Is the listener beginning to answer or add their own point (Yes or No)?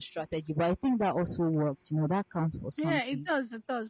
Yes